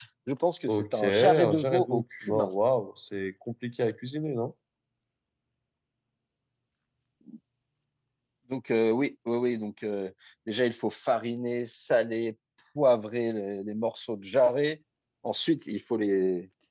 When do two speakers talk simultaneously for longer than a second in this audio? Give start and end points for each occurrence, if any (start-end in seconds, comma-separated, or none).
0.7-2.5